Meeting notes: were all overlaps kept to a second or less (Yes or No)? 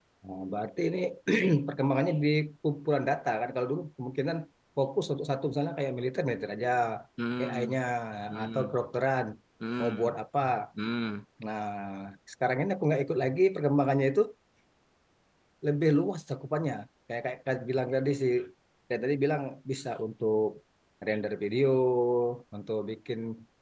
Yes